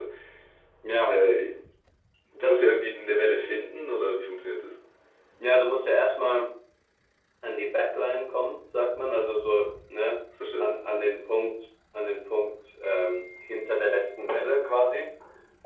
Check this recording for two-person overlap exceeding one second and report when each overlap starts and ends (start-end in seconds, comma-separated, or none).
none